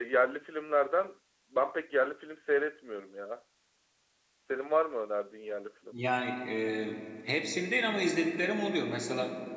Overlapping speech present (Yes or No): No